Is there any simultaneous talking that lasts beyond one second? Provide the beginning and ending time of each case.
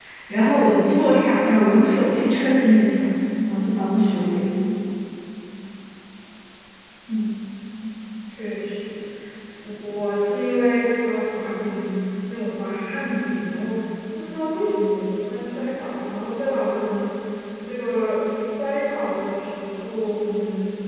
none

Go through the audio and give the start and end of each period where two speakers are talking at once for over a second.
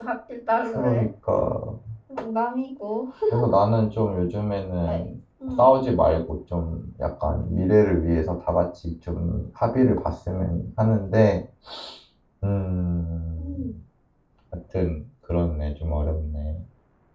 none

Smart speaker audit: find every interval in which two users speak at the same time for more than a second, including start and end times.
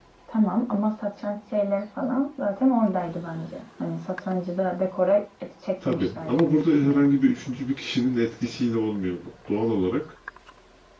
5.8-7.0

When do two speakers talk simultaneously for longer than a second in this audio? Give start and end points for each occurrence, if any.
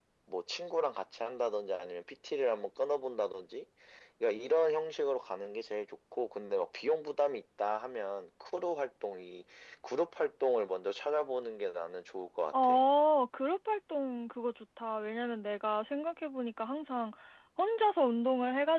none

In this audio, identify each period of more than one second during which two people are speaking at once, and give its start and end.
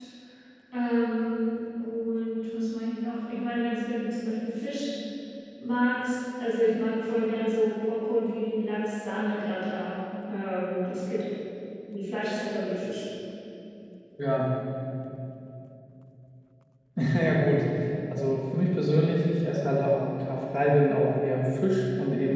none

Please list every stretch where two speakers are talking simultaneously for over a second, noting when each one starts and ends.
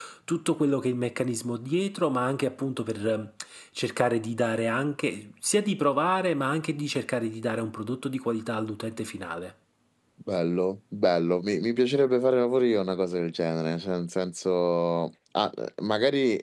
none

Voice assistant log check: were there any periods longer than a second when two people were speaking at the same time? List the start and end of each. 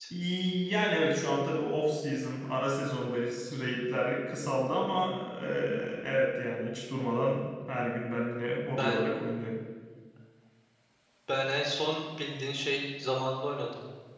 none

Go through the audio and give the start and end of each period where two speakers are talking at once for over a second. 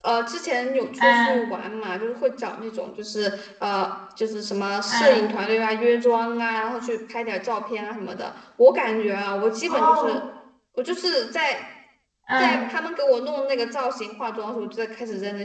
none

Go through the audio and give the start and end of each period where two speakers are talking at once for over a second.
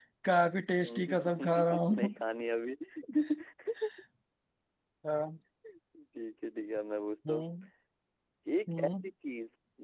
0.8-2.1

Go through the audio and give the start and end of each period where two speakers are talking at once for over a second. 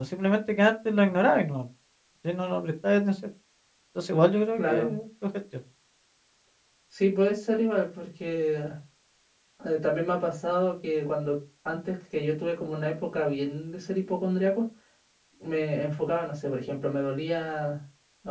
none

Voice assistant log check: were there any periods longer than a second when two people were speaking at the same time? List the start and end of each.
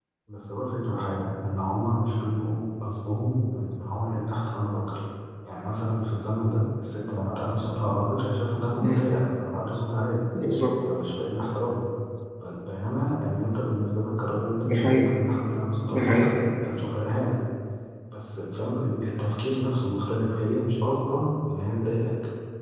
none

